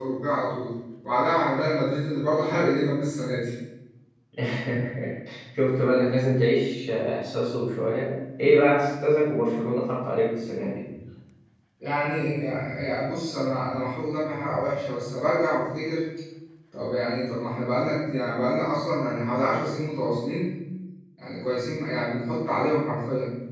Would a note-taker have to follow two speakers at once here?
No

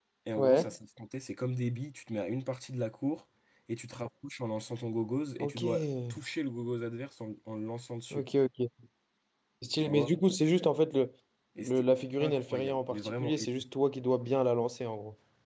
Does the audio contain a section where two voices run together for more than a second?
Yes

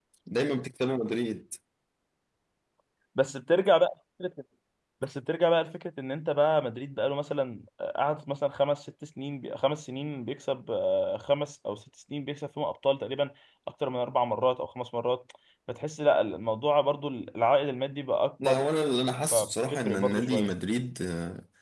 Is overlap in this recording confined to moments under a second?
No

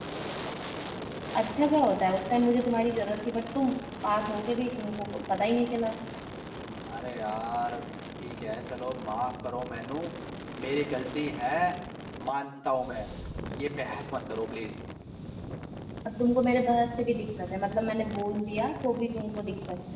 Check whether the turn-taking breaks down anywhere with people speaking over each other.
No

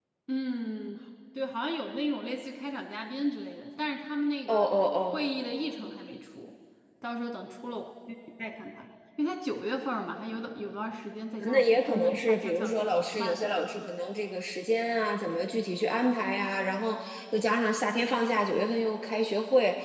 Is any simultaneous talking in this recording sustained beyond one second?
Yes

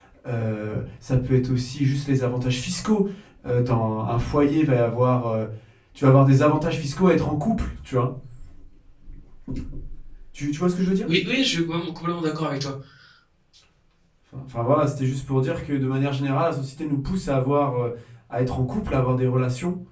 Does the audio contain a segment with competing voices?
No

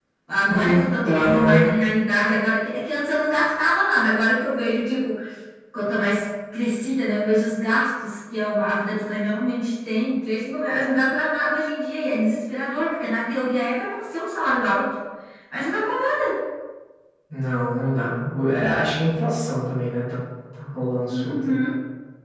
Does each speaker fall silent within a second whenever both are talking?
No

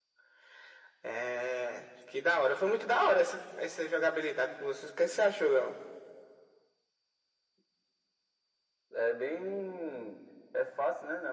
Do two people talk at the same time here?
No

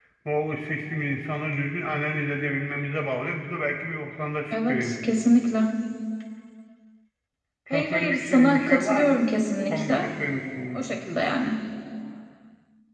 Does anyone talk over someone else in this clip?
Yes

